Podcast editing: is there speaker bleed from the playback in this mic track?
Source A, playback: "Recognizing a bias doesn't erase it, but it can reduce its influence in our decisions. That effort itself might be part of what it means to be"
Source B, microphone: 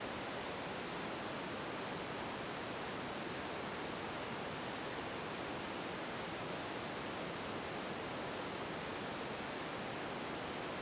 No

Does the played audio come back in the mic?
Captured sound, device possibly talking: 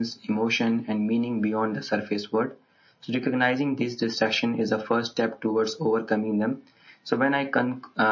Yes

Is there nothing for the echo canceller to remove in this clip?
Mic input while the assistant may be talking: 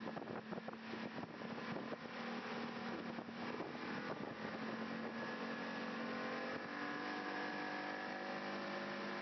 Yes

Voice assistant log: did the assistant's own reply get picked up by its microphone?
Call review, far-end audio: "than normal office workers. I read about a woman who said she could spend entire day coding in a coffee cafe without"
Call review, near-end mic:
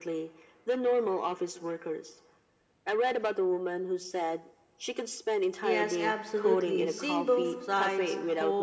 Yes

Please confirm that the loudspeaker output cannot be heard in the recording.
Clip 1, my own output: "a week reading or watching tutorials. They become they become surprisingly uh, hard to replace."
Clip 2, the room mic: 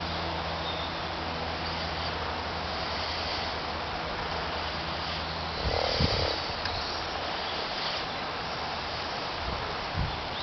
Yes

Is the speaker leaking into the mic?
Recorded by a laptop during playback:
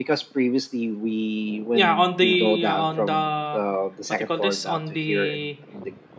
Yes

